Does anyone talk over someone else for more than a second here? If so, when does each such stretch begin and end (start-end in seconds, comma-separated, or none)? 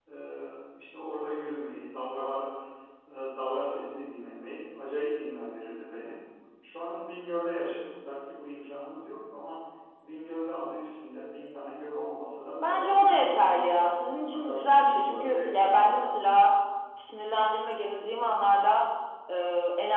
12.6-13.9, 14.3-16.1